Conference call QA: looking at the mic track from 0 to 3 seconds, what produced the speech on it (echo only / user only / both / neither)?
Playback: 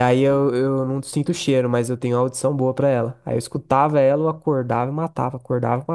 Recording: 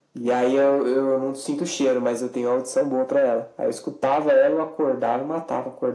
echo only